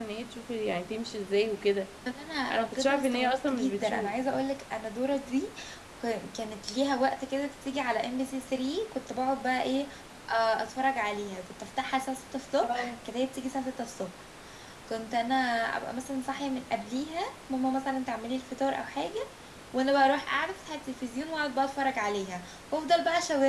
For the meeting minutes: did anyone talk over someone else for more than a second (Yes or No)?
Yes